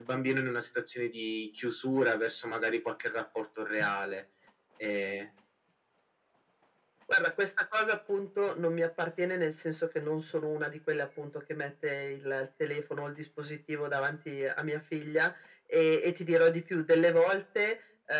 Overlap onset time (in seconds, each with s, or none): none